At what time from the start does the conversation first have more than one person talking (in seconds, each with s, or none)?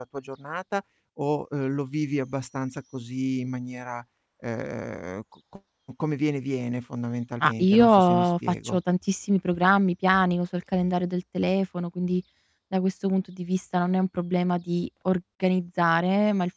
7.4 s